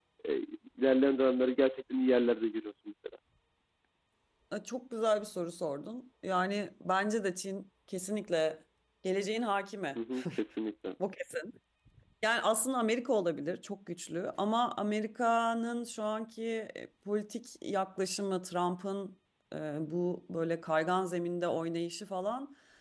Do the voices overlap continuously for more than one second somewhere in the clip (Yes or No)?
No